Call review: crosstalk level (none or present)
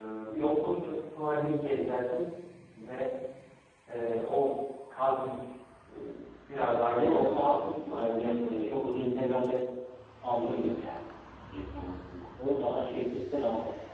present